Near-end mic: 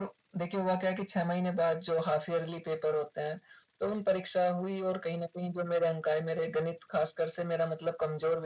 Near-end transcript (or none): none